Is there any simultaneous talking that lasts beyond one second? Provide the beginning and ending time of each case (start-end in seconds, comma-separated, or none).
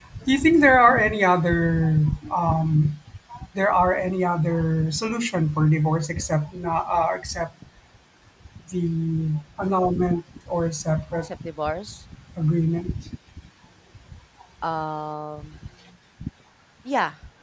none